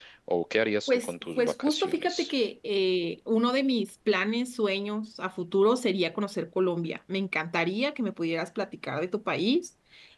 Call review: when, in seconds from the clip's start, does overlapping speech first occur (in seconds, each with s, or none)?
0.9 s